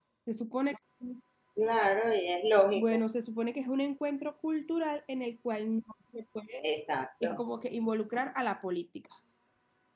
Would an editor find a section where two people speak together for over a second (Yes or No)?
No